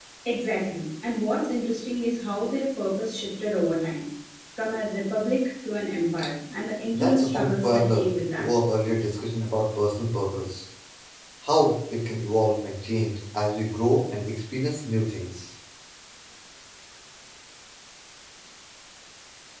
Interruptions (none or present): present